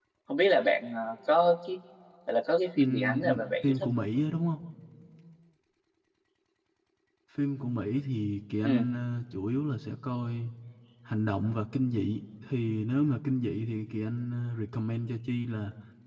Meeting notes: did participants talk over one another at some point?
Yes, from 2.8 s

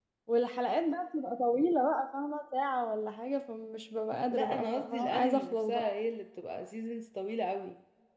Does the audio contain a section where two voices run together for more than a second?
Yes, from 4.3 s

